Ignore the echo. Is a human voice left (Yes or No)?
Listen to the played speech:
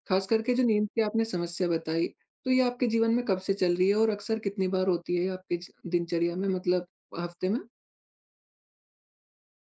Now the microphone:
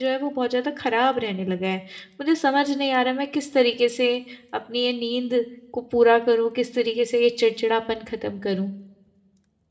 Yes